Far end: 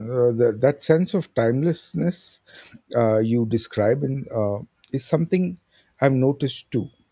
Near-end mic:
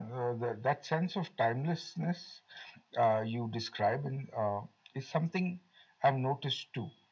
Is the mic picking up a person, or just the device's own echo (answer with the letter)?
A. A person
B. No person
B